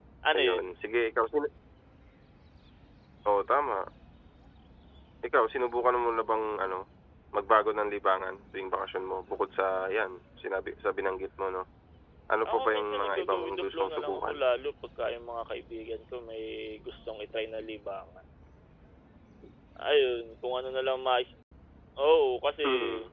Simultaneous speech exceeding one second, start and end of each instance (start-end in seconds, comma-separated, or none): 12.5-14.3